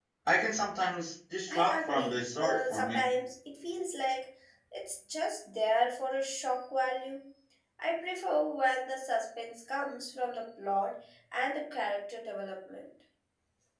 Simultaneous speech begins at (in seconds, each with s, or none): 1.5 s